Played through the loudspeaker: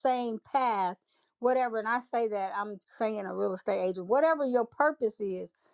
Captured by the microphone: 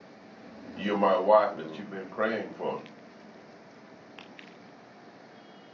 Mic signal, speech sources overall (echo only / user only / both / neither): user only